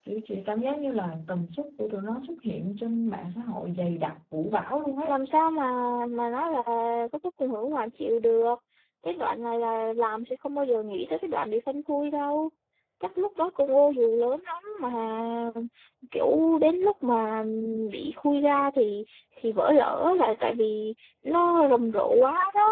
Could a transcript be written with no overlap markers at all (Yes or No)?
Yes